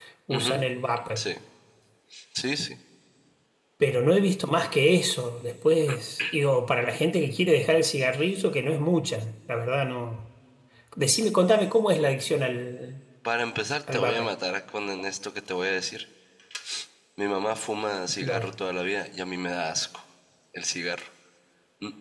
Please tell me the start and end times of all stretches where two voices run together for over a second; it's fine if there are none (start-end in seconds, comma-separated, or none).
none